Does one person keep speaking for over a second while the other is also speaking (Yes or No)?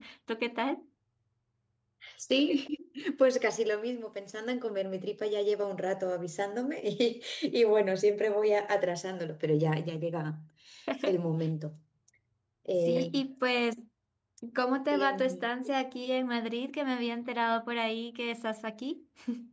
No